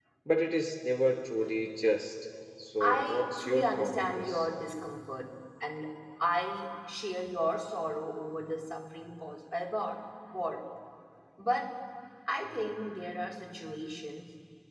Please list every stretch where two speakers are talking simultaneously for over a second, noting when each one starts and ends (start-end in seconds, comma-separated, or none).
2.8-4.5